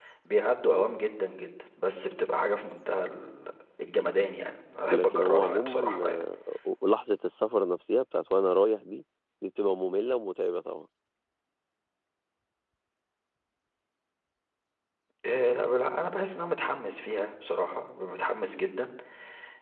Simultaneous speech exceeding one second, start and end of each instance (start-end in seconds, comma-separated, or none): 4.9-6.2